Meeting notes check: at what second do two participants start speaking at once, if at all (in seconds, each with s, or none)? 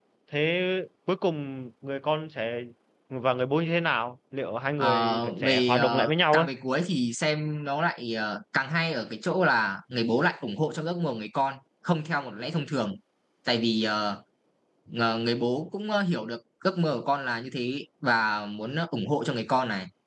4.8 s